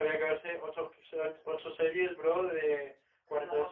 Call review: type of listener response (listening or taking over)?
taking over